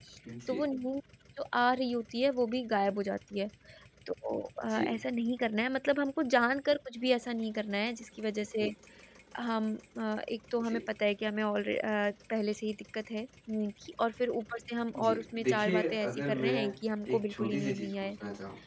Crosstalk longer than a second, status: present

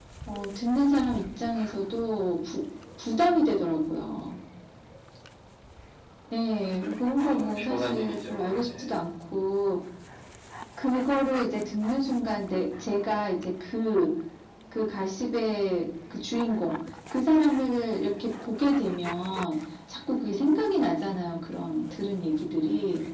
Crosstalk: present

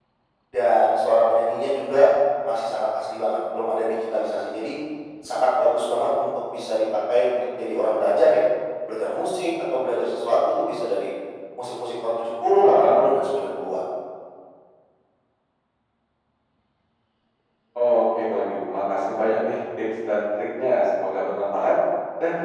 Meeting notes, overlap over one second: none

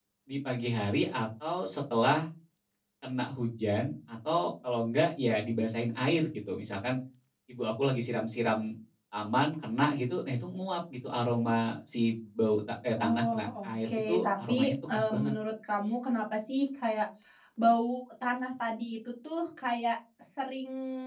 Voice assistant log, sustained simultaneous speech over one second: present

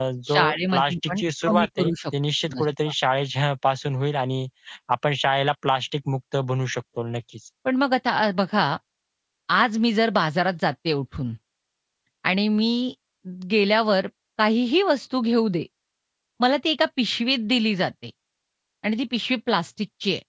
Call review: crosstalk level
present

